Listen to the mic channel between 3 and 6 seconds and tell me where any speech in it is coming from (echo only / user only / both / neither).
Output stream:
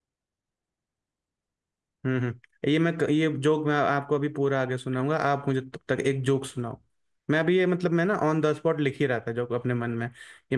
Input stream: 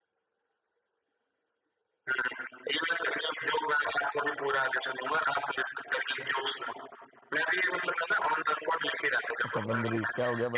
echo only